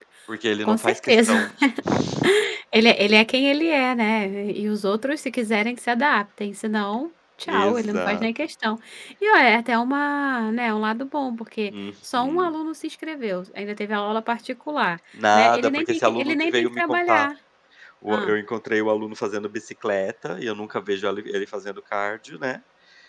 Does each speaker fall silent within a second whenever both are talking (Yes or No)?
No